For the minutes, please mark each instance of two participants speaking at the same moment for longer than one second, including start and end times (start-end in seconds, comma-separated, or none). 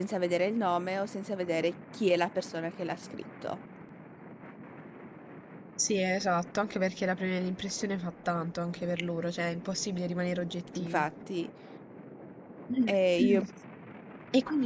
none